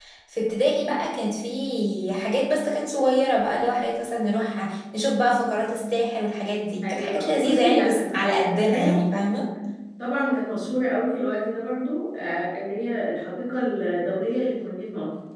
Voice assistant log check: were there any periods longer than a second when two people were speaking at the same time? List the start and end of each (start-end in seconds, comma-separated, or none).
6.8-9.0